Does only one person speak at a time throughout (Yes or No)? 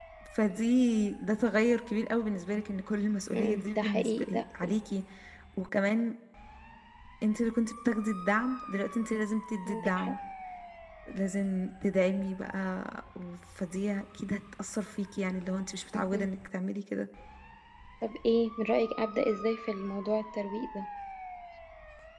No